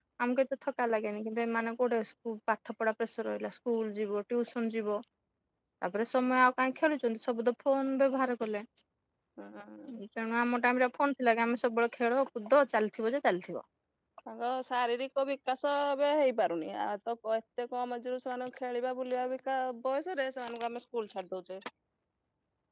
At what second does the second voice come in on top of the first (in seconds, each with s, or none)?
none